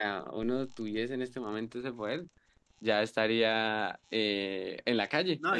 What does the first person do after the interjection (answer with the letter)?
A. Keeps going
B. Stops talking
B